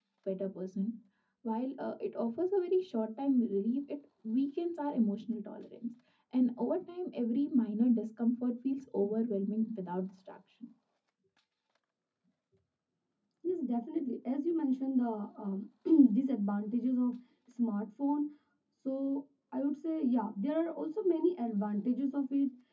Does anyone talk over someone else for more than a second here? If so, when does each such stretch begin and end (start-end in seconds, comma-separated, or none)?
none